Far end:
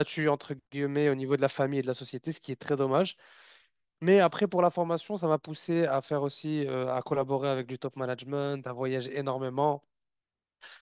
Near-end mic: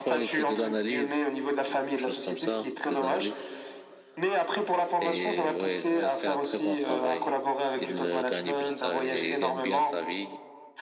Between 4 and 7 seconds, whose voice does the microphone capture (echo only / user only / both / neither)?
both